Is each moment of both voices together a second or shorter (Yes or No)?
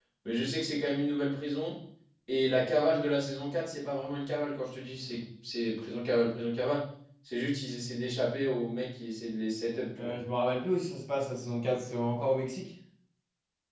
Yes